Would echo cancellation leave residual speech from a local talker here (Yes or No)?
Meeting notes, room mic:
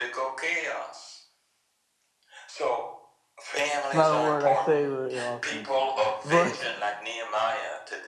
Yes